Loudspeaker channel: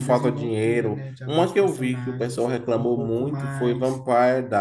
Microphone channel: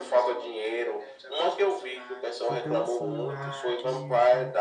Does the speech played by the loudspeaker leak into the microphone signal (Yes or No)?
Yes